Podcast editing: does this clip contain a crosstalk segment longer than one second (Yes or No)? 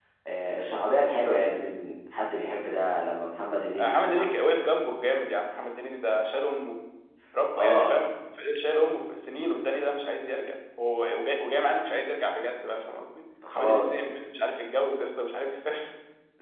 No